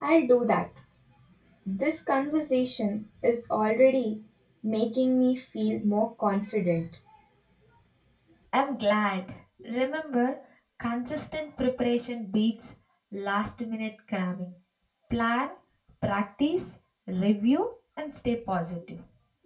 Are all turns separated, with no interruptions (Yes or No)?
Yes